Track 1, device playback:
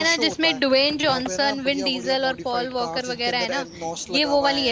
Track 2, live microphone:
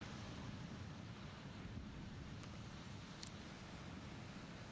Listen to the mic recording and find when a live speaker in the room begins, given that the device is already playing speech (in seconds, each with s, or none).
none